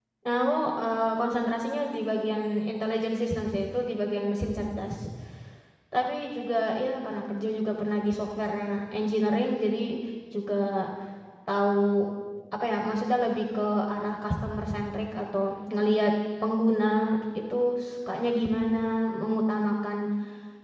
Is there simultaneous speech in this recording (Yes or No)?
No